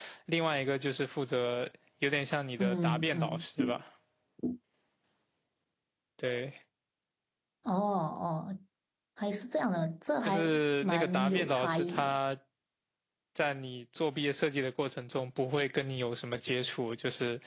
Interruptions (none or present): present